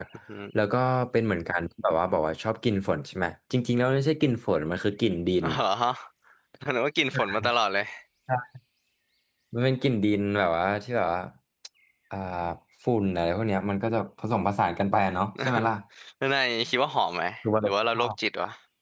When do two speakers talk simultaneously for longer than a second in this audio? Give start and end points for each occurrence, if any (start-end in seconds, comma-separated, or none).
none